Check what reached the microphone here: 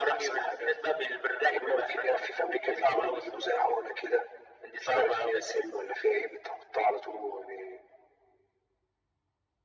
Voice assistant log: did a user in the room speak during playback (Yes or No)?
No